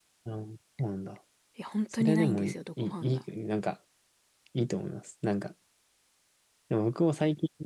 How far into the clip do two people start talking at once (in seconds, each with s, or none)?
1.9 s